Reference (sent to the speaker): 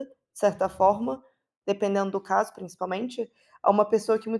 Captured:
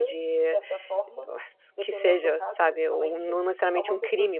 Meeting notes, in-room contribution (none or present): present